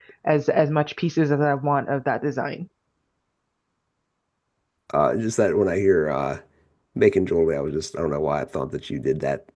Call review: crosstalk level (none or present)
none